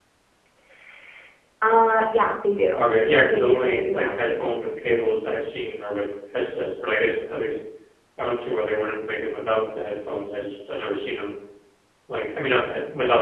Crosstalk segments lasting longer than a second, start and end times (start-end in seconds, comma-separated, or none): 3.3-4.5